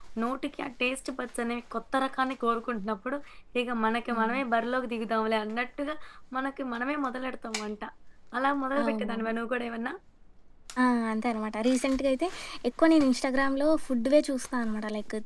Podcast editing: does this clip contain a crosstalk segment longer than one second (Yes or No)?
No